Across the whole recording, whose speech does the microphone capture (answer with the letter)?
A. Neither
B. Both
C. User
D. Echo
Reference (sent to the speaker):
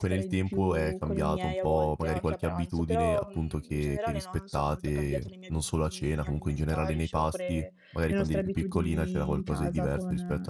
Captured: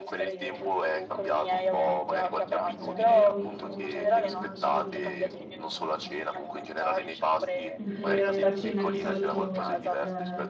B